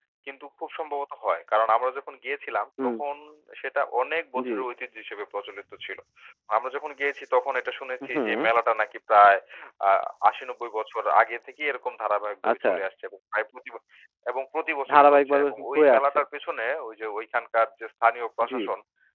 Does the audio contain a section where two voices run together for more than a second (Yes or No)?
Yes